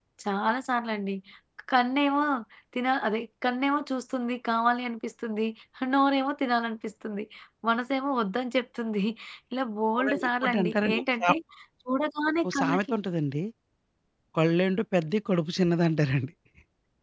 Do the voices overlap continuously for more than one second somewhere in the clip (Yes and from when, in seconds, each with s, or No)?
Yes, from 9.9 s